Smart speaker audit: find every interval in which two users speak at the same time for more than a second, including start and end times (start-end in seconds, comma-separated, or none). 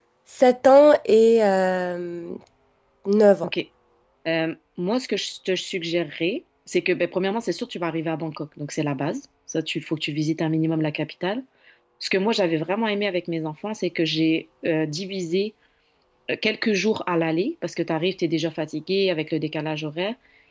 none